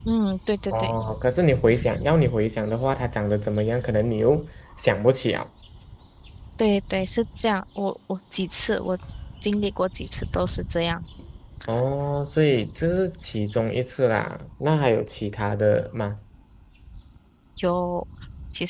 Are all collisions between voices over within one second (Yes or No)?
Yes